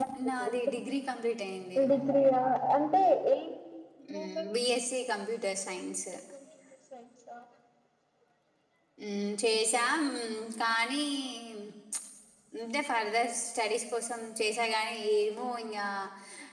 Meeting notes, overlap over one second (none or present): none